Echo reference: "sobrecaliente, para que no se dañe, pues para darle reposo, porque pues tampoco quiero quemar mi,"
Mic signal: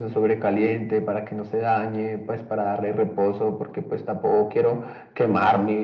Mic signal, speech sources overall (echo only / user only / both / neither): echo only